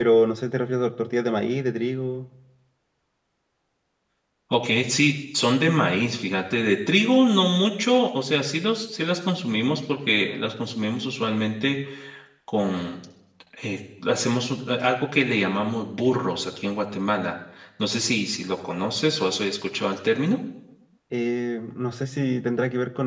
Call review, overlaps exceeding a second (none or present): none